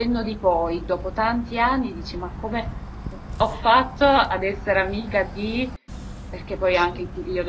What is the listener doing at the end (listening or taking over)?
listening